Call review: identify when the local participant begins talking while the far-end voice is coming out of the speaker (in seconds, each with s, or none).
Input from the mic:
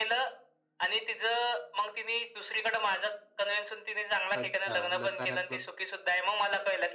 4.4 s